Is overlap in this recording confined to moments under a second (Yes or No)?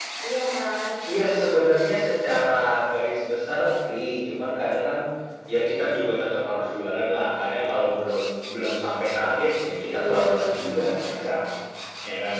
No